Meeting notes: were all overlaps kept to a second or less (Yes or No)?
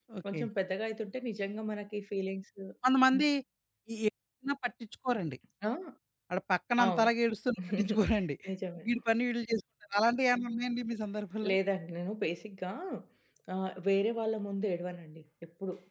Yes